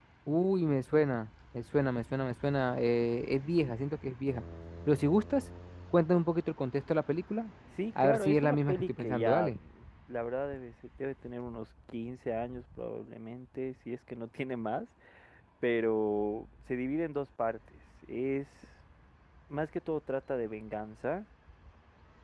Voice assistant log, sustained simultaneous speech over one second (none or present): present